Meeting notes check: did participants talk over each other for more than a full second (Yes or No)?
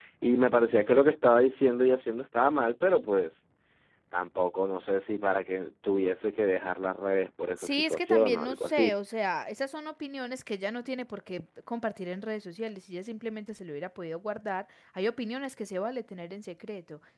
Yes